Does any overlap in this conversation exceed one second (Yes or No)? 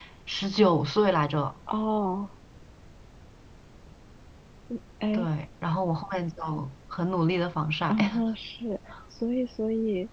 No